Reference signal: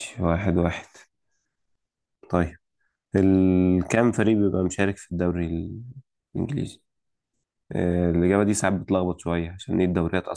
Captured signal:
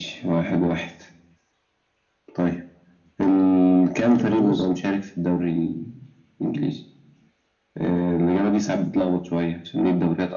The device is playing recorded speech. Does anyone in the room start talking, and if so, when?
4.2 s

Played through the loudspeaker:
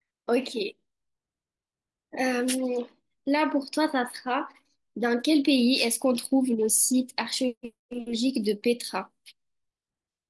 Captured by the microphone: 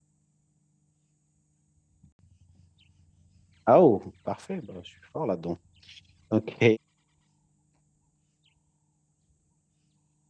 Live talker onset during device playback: 3.7 s

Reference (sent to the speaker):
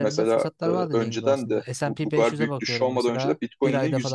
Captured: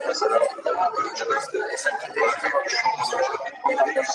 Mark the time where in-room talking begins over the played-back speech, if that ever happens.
none

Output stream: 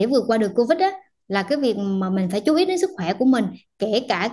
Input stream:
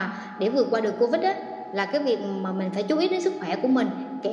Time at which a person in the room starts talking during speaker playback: none

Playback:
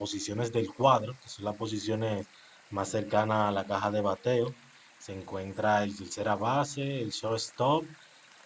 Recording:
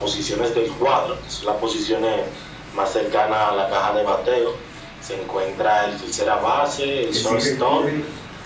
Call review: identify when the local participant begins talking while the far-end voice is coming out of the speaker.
7.2 s

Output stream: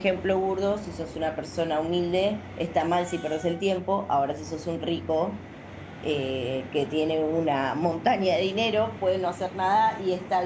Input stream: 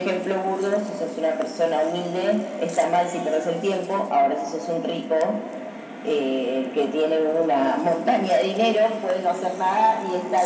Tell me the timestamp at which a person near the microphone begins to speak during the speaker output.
none

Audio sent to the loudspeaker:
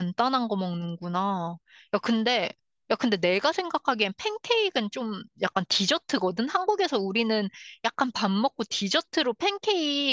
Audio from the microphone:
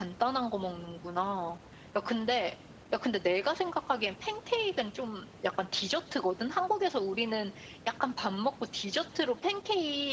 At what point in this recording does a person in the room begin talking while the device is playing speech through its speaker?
none

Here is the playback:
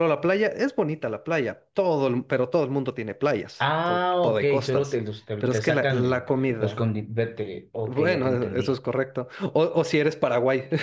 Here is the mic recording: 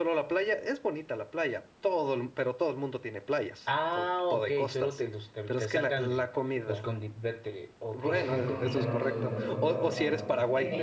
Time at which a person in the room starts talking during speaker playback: 8.0 s

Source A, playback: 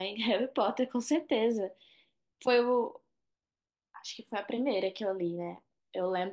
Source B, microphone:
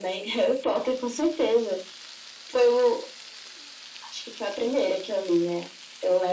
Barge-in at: none

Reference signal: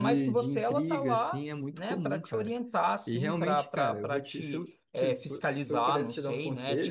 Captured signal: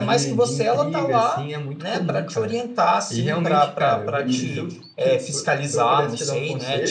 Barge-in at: 4.2 s

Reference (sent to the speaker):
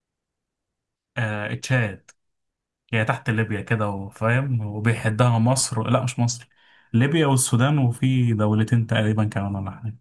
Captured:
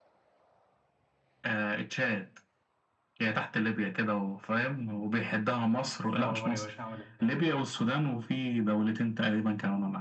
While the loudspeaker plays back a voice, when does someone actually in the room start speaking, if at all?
6.1 s

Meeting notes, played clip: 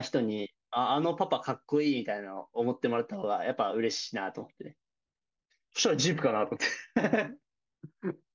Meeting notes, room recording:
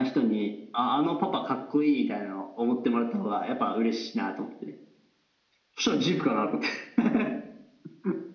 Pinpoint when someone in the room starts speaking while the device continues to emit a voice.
none

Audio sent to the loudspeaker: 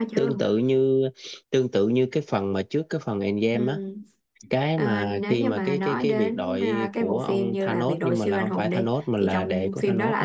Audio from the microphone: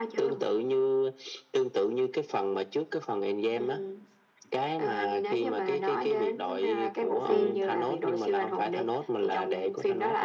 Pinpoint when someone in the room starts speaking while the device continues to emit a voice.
7.2 s

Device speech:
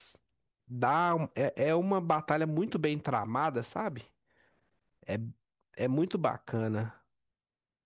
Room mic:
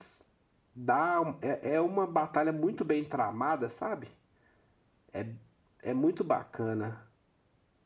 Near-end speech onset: none

